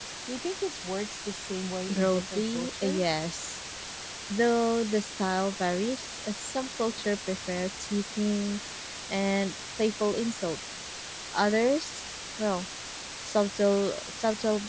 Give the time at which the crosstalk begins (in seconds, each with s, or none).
1.9 s